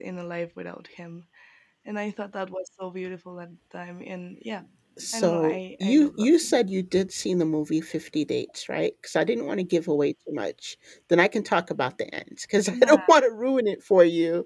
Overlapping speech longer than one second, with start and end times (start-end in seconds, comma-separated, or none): 5.1-6.6